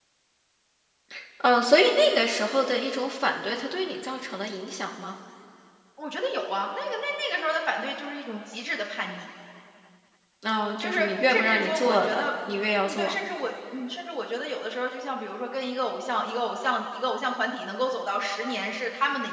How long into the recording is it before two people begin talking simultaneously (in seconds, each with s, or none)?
10.8 s